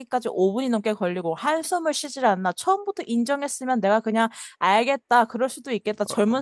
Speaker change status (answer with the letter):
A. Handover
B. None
B